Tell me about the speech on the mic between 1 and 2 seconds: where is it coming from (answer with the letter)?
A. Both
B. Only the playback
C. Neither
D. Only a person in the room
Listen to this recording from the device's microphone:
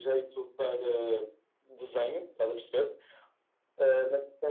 B